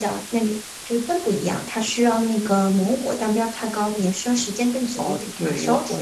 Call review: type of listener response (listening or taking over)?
taking over